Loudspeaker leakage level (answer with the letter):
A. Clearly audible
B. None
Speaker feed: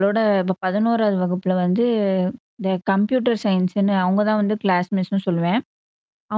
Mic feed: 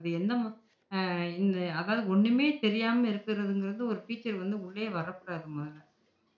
B